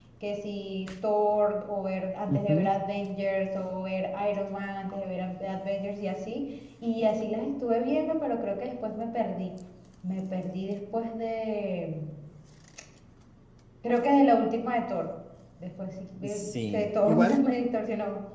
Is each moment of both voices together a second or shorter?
No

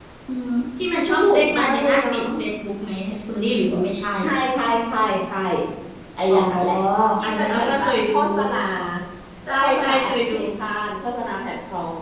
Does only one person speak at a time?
No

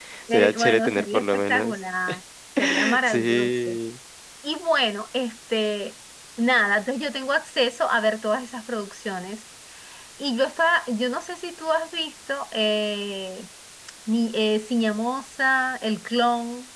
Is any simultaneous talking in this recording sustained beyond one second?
Yes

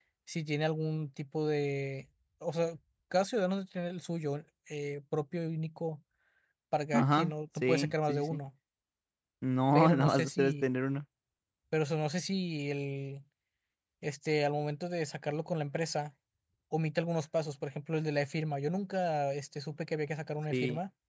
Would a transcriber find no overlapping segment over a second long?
No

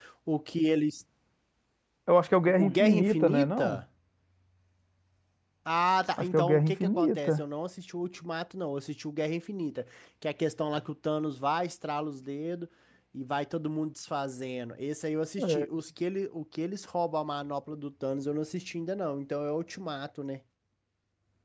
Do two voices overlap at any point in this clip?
Yes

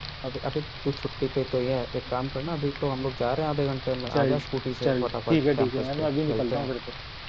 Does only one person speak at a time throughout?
No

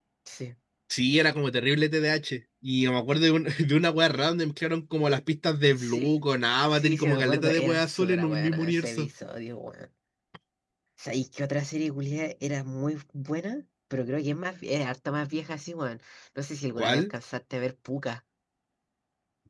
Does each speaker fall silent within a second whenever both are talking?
No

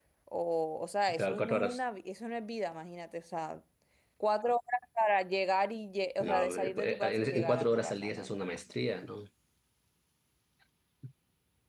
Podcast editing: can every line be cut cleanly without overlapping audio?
No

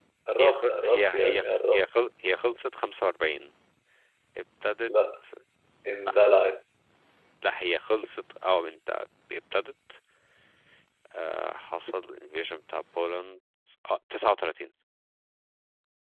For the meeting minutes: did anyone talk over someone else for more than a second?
Yes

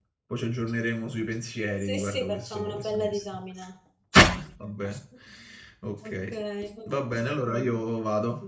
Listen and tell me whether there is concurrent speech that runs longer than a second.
Yes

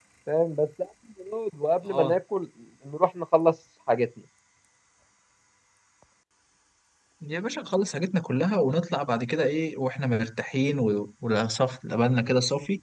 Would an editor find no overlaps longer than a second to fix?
Yes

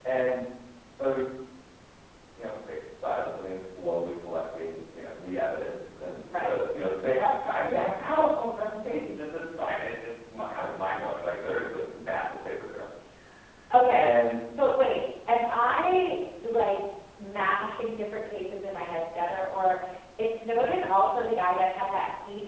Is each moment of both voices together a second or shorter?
Yes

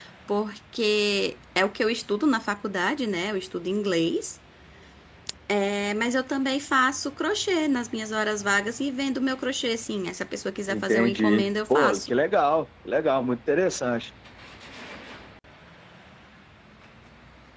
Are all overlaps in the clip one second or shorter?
No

